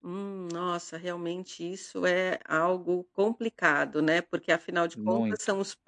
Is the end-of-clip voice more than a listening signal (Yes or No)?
No